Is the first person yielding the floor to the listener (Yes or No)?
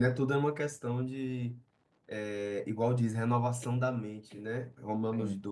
No